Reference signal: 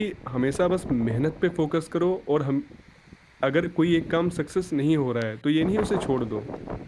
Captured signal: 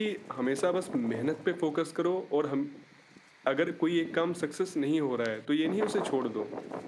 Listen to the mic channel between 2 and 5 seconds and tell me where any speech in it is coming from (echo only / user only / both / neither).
echo only